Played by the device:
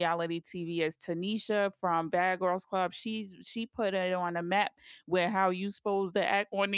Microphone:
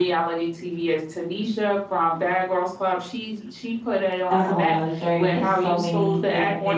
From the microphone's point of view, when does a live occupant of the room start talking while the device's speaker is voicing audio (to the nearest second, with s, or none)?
4 s